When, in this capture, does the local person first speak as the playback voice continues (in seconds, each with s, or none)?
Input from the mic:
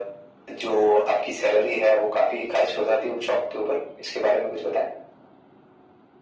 none